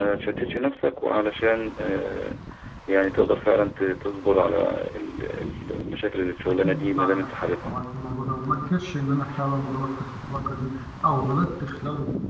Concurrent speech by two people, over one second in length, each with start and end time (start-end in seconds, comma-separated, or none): 6.5-7.8